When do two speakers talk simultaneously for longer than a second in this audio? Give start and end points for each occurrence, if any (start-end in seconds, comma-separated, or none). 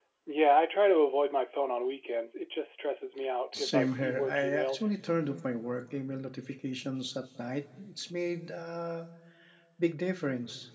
3.5-4.9